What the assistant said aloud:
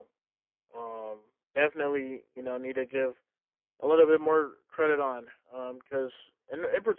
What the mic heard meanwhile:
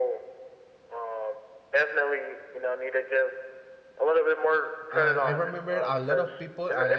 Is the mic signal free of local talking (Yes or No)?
No